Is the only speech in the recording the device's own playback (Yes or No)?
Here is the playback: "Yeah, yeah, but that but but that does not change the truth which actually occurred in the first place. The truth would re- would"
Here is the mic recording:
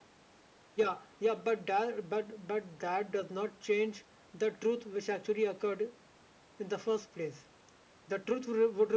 Yes